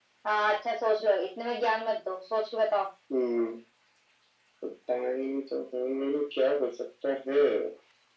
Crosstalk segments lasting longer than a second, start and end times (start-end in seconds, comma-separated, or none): none